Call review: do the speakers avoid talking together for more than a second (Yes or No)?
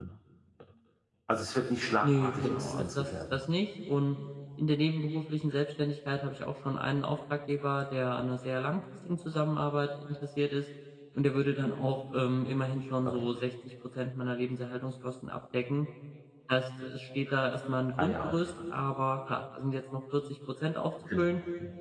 No